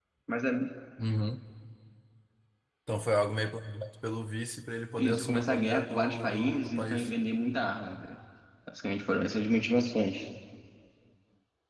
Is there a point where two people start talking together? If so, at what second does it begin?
5.0 s

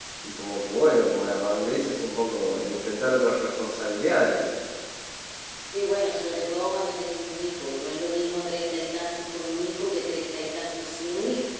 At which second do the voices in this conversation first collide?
none

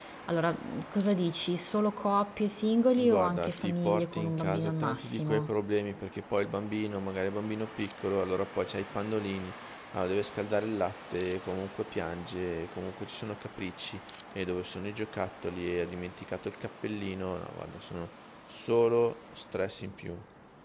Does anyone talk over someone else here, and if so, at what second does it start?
3.0 s

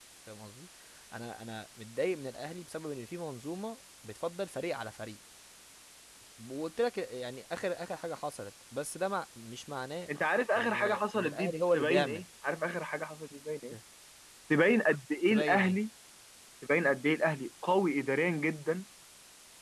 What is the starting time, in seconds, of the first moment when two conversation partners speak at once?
10.6 s

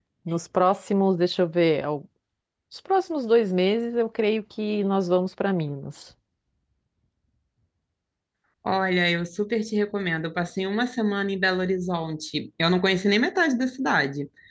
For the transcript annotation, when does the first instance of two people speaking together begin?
none

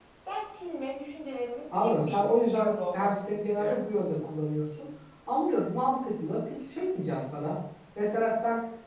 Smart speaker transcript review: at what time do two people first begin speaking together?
1.7 s

